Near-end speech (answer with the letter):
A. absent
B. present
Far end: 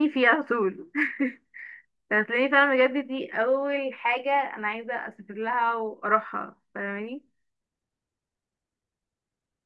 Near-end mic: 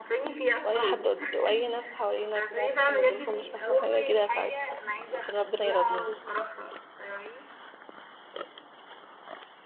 B